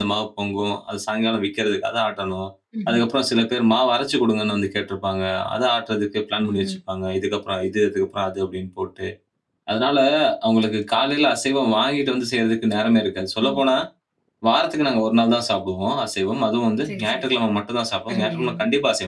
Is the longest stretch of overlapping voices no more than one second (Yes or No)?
Yes